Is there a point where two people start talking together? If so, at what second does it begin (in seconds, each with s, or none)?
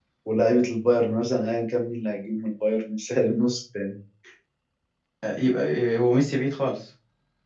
none